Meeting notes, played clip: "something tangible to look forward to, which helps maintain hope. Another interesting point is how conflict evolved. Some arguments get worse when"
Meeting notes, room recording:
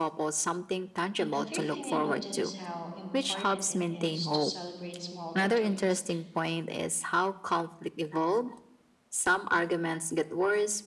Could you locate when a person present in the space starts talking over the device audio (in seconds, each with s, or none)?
1.2 s